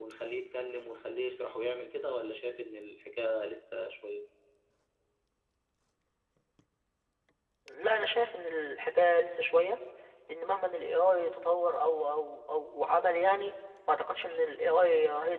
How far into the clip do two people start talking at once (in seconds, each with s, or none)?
none